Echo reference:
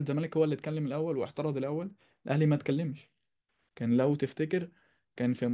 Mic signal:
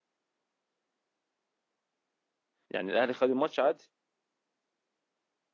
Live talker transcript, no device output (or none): يعني الاهلي خد الماتش عادي